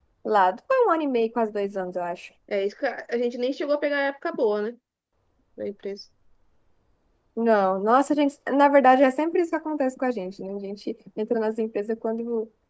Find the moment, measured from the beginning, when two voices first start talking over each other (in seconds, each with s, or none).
none